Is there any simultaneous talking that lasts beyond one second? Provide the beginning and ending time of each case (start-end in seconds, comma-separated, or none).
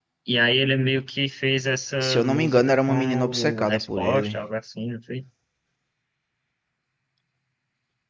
2.0-4.4